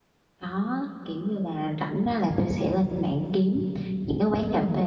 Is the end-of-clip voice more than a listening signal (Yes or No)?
No